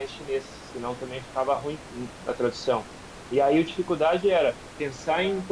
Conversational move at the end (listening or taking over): listening